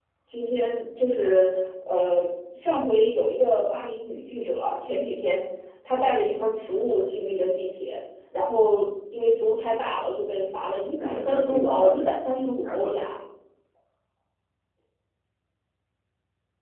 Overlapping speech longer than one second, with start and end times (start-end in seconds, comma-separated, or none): 11.0-12.2